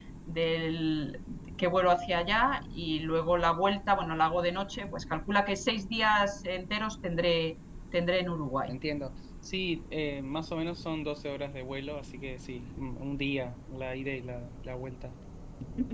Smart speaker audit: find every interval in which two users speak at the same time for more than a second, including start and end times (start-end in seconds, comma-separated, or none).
none